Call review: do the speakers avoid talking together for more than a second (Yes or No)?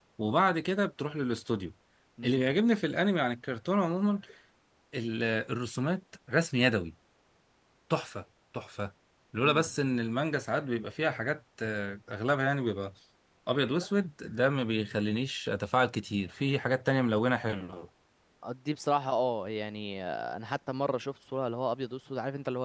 Yes